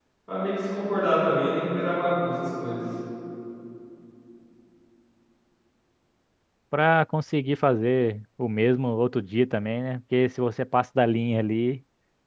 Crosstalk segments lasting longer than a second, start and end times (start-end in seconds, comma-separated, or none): none